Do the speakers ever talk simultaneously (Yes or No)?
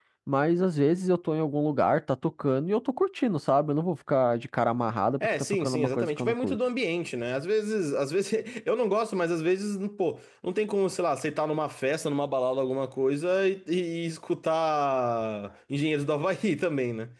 Yes